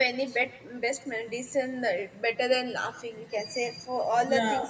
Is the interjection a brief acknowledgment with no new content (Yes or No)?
Yes